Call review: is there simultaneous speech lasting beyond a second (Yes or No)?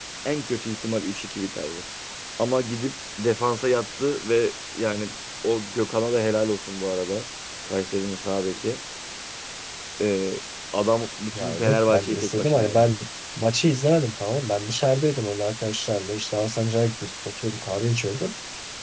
Yes